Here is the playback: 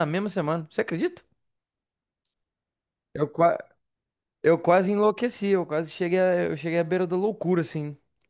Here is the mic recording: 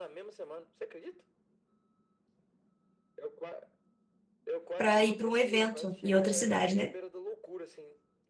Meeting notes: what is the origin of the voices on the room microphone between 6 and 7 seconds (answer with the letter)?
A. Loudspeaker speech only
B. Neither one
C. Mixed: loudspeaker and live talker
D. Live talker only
C